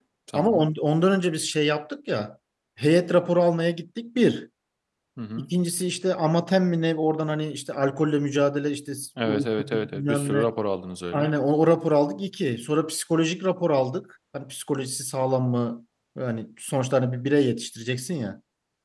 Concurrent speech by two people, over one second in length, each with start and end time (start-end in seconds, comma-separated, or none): 9.2-10.5